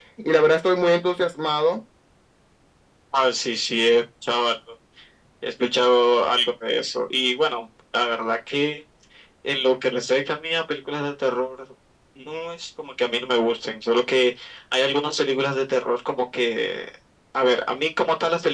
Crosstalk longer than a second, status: none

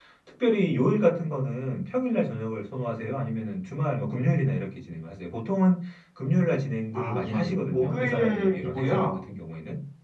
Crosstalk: present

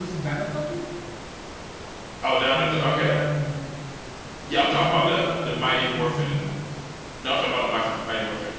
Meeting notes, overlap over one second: present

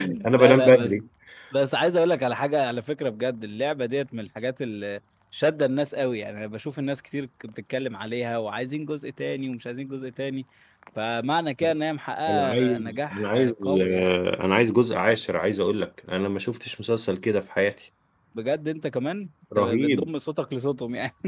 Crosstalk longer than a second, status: present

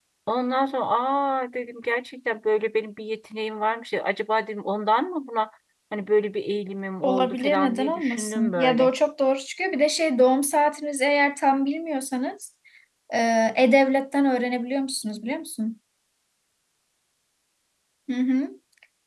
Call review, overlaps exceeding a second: present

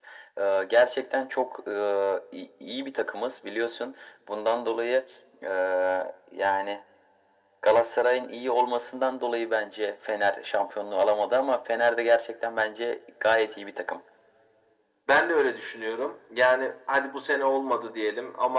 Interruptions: none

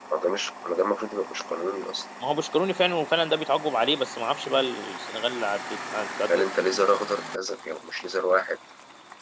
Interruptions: none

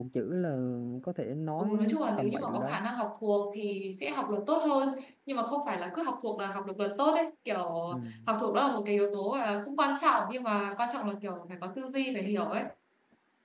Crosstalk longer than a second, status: present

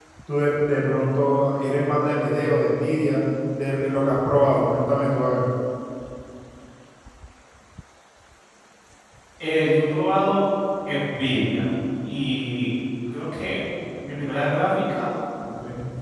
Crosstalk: none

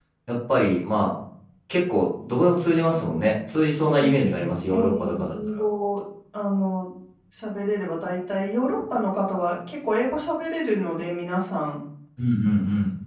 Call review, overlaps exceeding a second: present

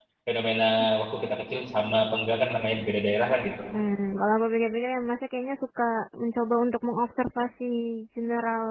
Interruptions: none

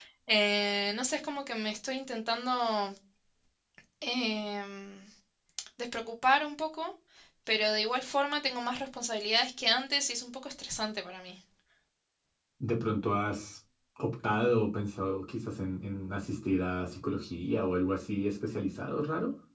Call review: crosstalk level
none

